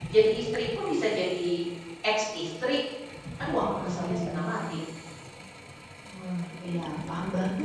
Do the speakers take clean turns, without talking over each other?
No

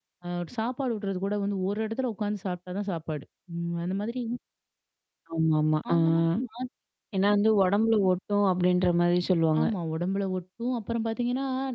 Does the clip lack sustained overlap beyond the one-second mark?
Yes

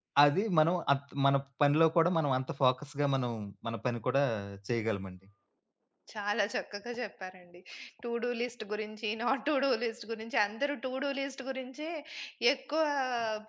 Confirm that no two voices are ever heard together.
Yes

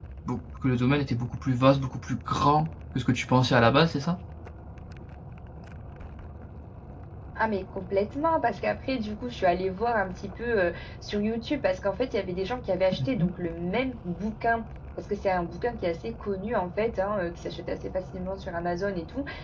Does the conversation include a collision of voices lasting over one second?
No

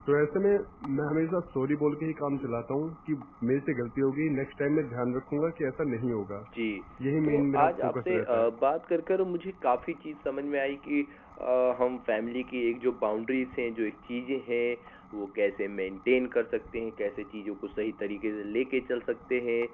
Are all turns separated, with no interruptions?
No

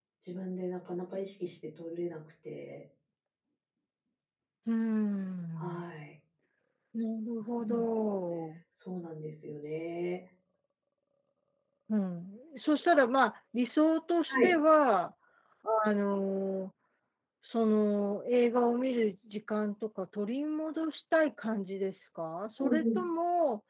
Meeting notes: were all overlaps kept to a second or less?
Yes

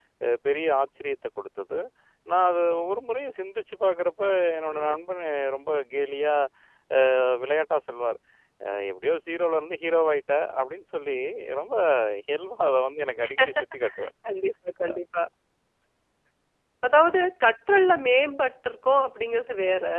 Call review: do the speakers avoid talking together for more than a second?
Yes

